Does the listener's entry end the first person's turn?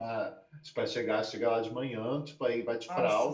No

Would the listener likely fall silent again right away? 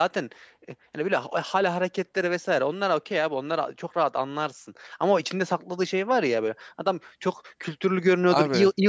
Yes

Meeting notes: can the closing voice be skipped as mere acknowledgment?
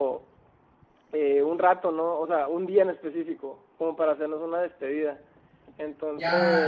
No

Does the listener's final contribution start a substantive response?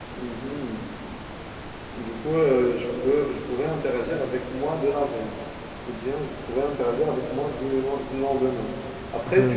Yes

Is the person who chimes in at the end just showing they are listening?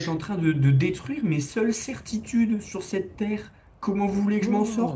No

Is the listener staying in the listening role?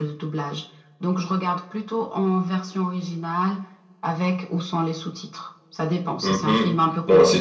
No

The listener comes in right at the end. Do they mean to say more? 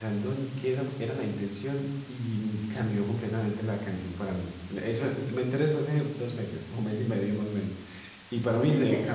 No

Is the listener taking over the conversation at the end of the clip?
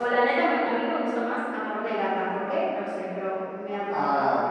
Yes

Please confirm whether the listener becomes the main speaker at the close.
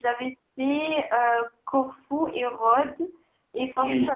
No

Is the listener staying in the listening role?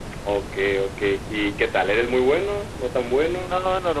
No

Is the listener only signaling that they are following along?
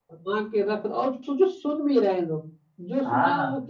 No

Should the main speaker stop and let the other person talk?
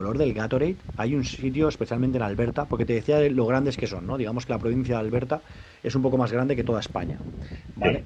No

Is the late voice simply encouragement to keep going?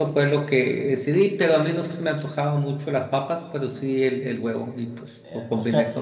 No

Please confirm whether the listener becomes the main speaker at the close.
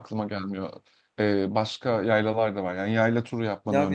Yes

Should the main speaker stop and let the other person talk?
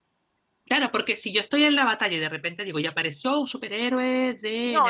Yes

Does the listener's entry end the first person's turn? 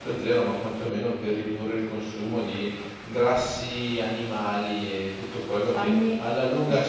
No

